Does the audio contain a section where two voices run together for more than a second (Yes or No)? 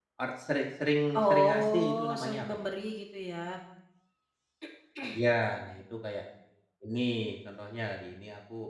Yes